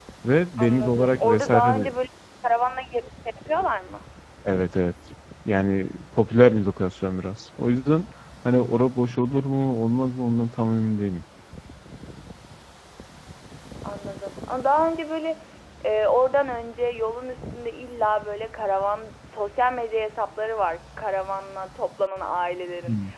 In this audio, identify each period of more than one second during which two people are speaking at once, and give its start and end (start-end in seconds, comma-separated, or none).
0.6-1.9